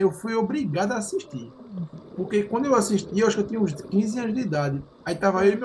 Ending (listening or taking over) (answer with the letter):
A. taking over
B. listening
B